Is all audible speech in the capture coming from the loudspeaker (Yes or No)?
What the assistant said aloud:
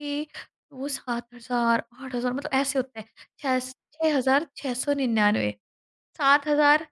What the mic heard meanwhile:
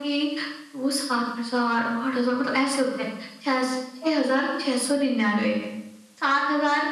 Yes